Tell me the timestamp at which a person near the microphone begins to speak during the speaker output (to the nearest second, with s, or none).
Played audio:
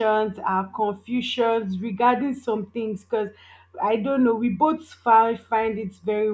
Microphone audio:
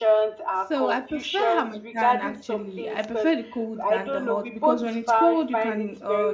1 s